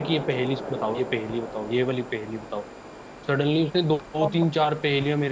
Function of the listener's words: listening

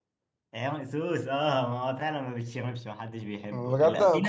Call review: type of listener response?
taking over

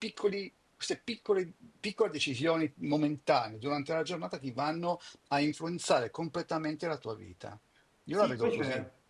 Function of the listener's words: taking over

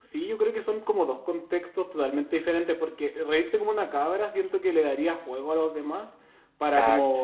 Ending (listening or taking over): listening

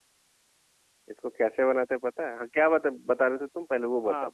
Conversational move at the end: taking over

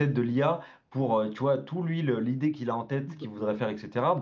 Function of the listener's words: listening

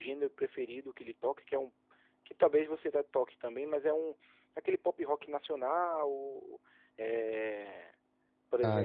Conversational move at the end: taking over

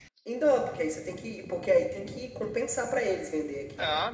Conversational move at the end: taking over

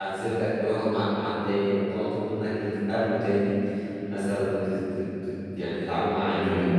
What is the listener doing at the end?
listening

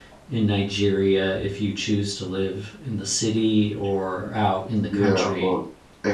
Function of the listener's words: taking over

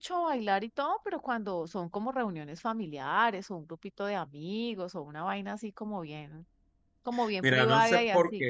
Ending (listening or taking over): taking over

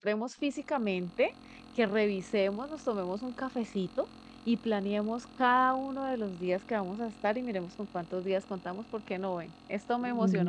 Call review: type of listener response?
taking over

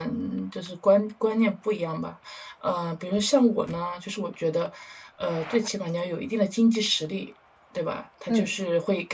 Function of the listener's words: listening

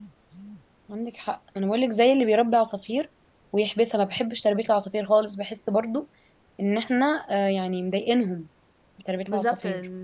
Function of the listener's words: taking over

